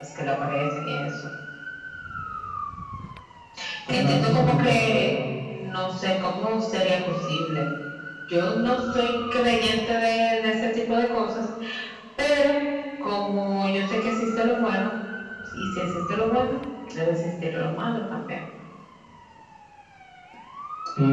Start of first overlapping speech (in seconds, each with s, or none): 3.9 s